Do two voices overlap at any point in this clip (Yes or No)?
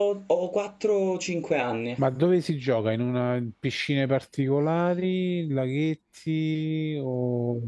No